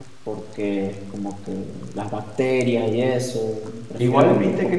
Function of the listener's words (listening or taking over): taking over